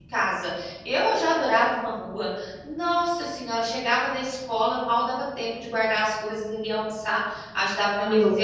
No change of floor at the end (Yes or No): Yes